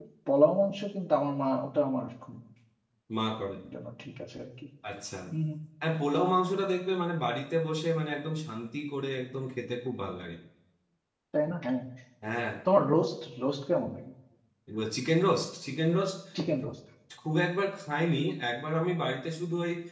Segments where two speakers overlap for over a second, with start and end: none

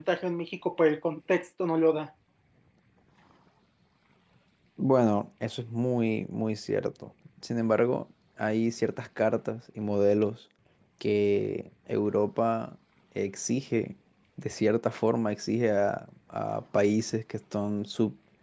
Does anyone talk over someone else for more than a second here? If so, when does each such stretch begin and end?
none

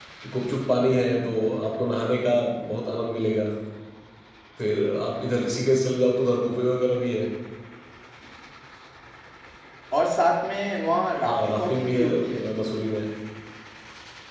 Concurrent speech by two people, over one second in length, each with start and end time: 11.2-12.4

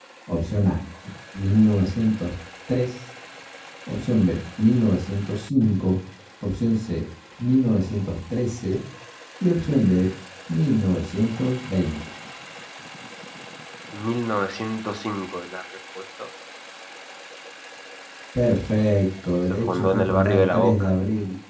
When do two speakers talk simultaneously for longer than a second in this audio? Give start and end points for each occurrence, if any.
19.5-20.9

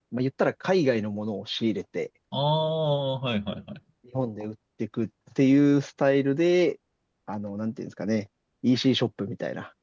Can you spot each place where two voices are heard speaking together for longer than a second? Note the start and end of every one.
none

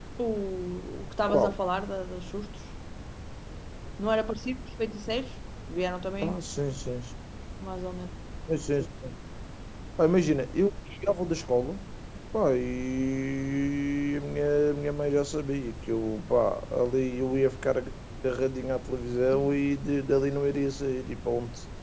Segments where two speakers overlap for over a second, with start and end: none

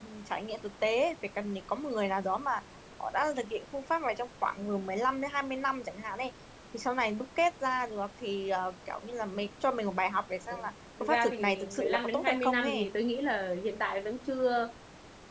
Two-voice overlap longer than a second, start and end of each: 11.0-12.9

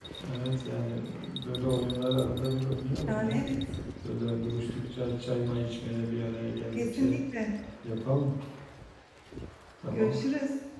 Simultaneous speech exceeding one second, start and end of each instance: none

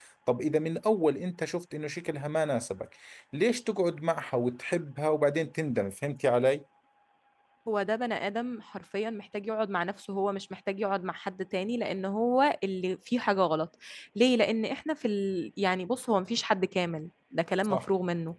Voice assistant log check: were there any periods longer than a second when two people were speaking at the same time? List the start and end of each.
none

